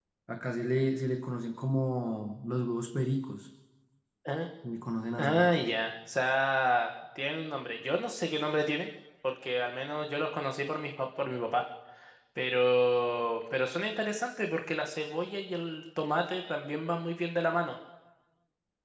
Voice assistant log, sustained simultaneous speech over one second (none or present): none